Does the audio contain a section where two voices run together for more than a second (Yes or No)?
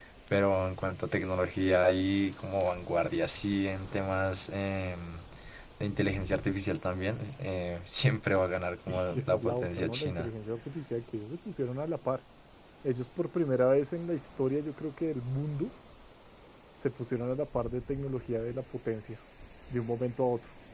Yes